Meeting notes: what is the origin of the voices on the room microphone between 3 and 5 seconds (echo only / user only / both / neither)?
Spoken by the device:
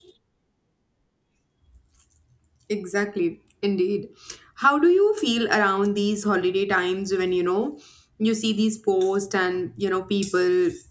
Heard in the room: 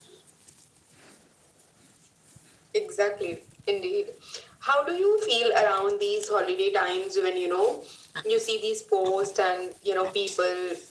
echo only